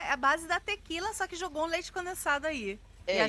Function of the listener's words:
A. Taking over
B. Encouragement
A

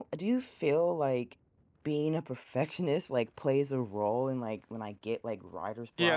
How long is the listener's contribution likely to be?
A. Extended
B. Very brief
A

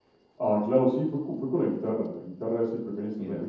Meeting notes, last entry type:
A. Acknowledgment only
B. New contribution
A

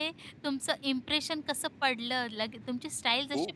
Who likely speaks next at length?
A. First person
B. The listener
A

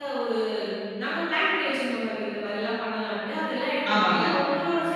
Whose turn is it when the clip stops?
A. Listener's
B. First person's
B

